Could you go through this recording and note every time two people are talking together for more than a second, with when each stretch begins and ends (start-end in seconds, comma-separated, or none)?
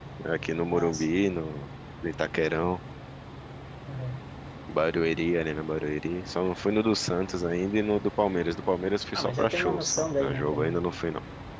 9.2-10.9